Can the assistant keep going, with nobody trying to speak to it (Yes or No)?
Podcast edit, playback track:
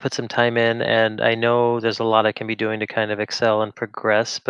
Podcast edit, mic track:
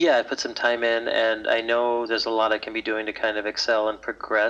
Yes